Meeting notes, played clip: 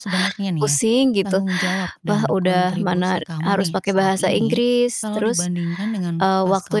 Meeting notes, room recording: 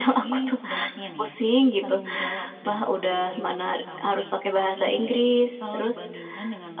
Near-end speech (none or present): none